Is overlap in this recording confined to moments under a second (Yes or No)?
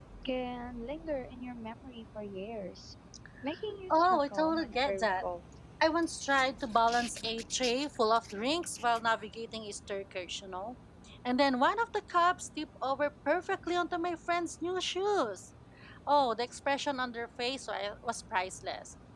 No